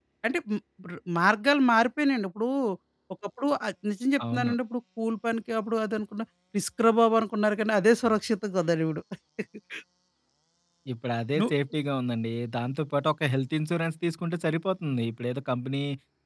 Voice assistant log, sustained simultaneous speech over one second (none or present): none